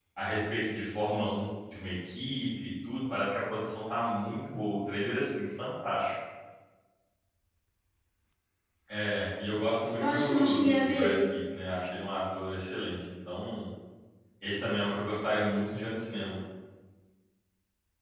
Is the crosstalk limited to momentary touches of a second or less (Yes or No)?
No